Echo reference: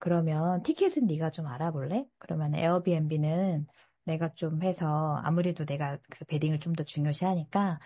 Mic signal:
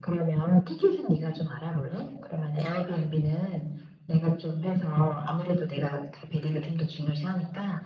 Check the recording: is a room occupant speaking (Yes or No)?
No